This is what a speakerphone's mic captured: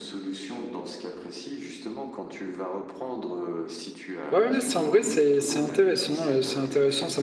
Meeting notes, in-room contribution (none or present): present